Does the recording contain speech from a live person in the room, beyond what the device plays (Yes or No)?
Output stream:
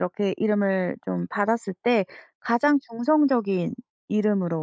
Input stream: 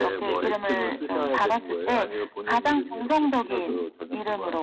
Yes